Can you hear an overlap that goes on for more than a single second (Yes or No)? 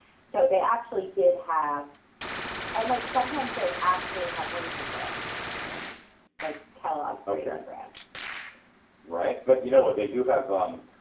No